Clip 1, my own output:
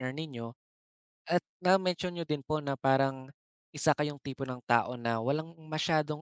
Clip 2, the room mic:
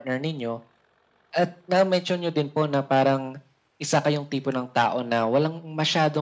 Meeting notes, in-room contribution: none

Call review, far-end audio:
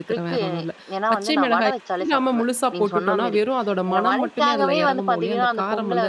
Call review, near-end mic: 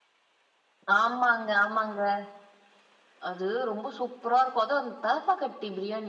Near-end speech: present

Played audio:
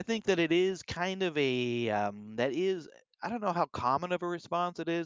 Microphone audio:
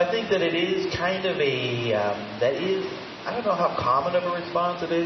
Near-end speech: none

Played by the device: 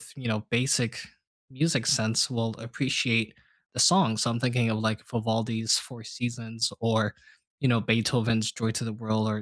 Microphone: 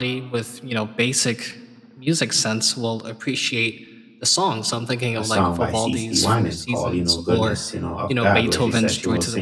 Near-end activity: present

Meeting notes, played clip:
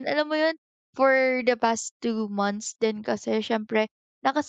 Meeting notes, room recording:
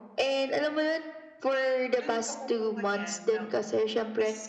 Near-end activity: present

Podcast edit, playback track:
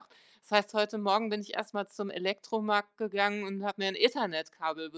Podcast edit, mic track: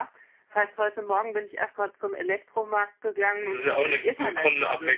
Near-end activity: present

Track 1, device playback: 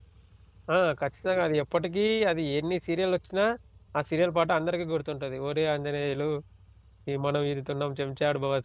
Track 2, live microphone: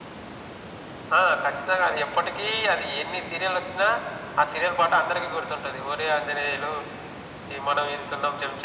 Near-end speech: none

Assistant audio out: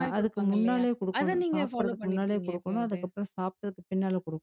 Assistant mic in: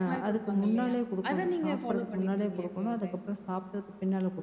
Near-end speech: none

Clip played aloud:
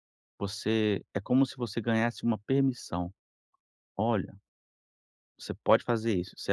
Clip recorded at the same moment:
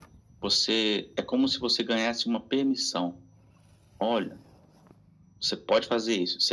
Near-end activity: none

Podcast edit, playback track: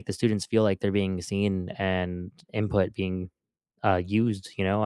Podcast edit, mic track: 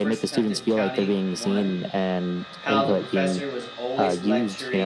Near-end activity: present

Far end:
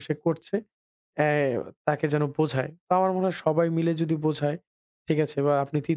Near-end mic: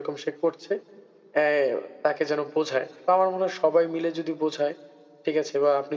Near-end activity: none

